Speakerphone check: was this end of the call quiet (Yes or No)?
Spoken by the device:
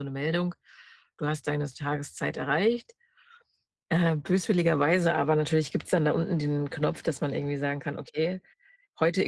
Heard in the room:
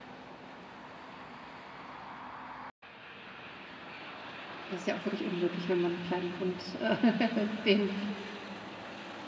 No